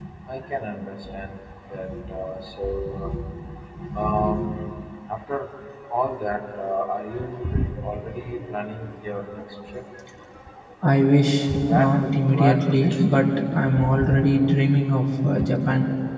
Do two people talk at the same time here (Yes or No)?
Yes